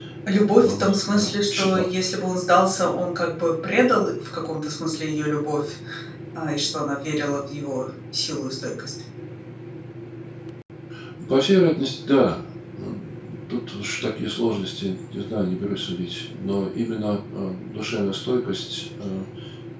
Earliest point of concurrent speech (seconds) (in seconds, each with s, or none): 0.6 s